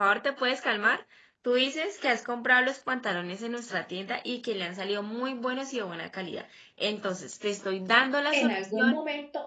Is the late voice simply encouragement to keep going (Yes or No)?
No